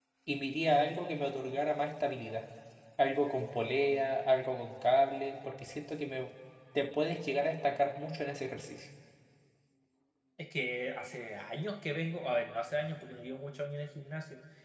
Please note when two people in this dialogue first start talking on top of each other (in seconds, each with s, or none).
none